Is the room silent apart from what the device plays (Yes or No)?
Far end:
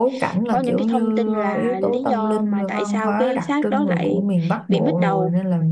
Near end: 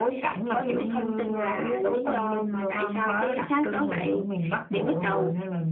Yes